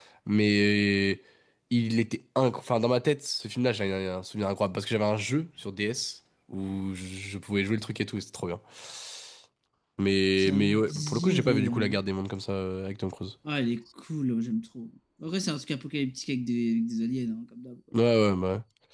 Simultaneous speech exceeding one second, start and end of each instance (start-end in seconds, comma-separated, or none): 10.4-12.0